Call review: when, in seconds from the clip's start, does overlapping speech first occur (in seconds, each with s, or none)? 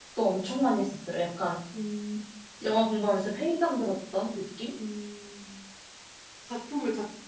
none